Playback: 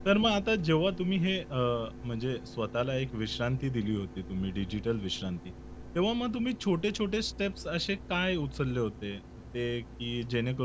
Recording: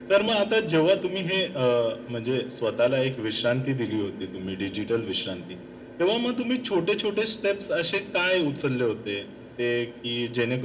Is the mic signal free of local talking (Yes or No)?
Yes